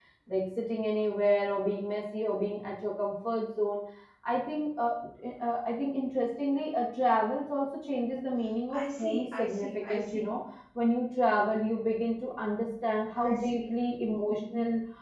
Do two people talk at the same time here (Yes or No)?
Yes